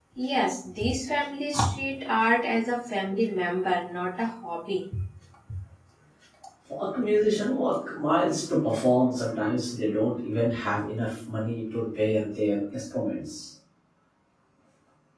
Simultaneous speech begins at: none

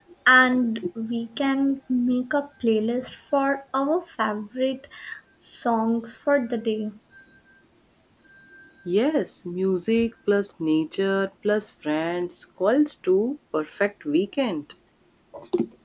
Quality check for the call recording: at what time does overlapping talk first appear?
none

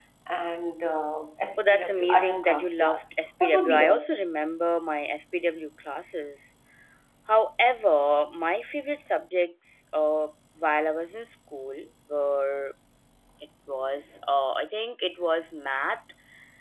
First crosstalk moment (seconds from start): 2 s

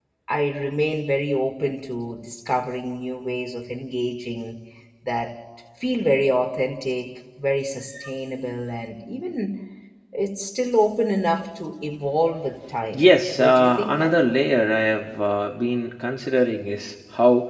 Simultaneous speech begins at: 13 s

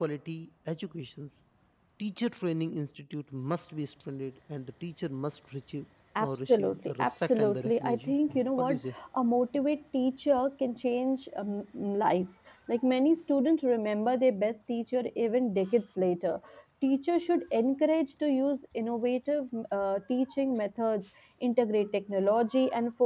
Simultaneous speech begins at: 6 s

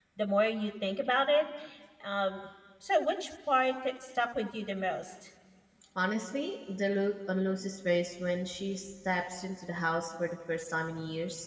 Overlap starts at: none

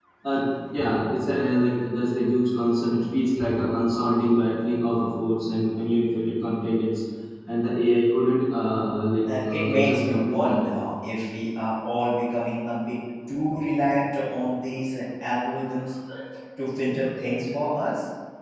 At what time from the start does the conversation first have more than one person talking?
9 s

